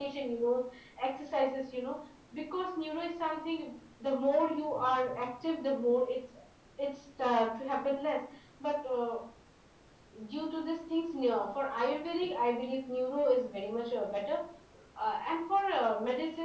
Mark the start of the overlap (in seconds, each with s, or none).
none